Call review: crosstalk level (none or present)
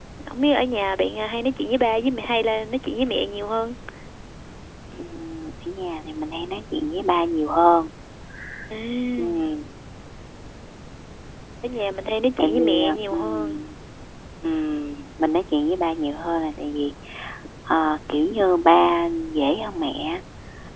present